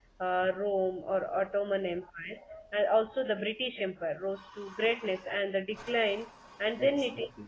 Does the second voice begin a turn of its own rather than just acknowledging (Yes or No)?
No